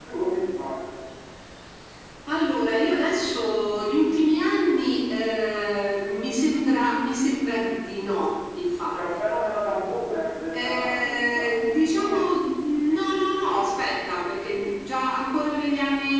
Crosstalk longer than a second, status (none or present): present